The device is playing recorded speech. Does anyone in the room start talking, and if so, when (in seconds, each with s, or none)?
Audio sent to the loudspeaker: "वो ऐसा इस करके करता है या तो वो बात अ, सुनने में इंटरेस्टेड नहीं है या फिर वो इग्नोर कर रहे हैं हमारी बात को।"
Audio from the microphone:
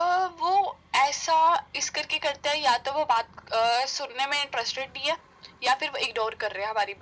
none